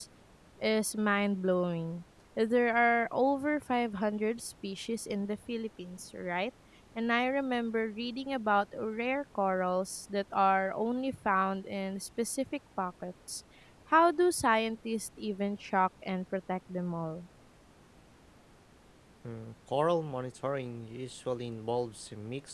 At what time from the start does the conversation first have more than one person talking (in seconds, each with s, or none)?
none